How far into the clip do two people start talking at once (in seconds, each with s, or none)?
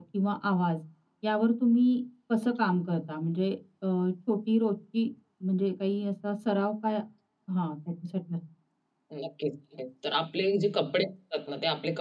none